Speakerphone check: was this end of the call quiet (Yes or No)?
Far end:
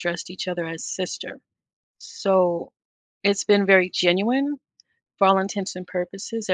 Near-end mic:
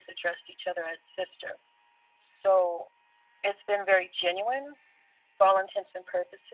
Yes